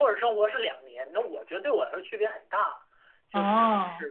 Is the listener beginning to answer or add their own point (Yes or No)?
No